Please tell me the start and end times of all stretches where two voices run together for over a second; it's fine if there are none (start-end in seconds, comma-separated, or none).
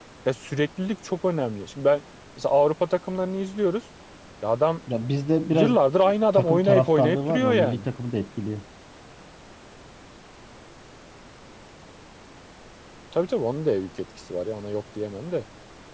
6.3-7.8